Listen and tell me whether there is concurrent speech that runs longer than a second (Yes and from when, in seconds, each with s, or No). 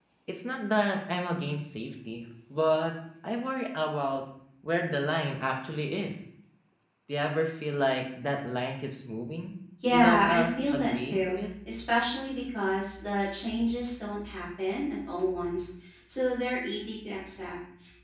Yes, from 9.8 s